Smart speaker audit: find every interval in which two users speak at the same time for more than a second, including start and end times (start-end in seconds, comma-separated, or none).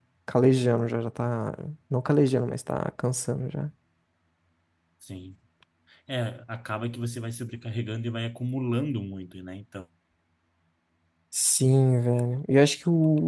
none